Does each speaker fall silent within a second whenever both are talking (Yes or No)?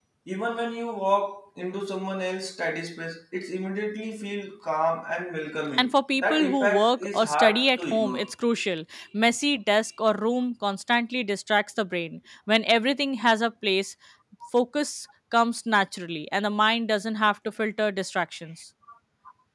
No